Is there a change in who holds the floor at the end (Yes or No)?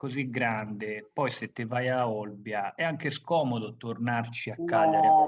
Yes